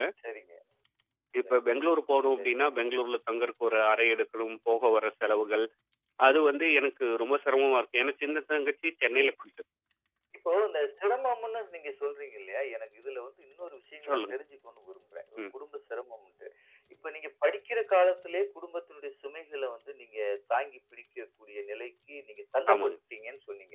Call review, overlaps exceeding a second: none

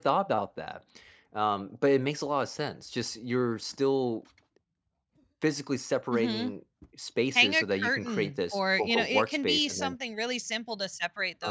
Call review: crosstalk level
present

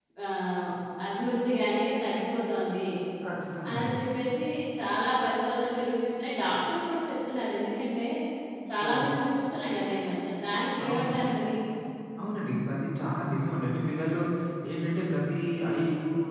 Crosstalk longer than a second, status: none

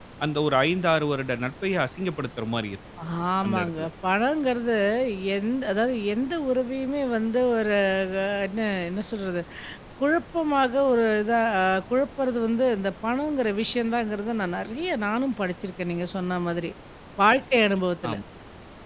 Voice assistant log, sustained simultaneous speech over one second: none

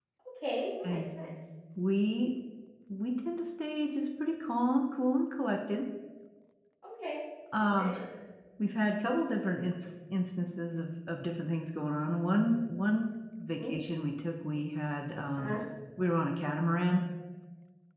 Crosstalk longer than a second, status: none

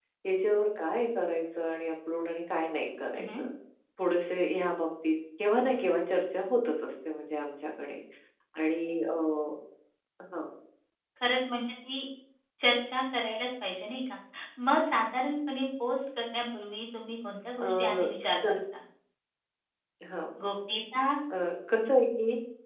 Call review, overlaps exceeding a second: none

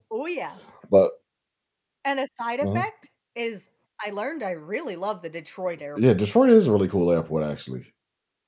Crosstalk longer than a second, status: none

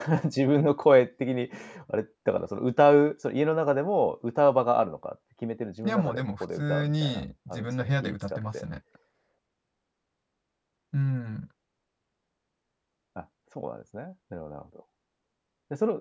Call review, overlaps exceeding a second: present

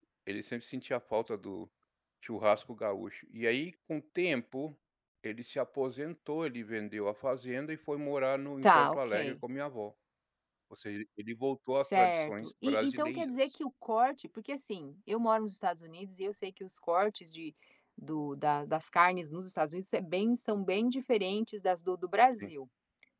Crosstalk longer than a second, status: present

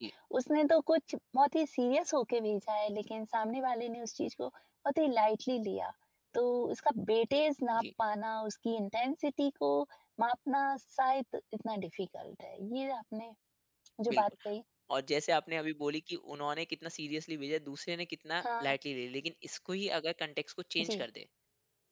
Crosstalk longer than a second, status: none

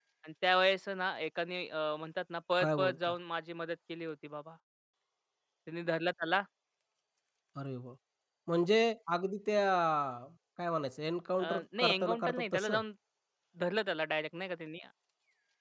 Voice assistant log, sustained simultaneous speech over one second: present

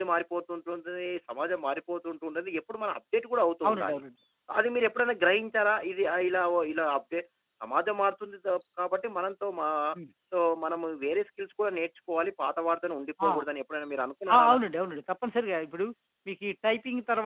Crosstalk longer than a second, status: none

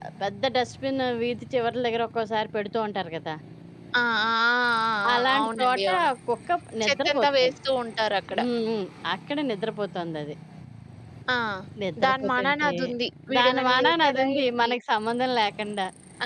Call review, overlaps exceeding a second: present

